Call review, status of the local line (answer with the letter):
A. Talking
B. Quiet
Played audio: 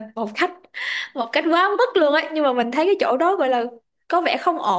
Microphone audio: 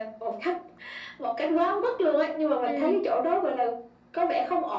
A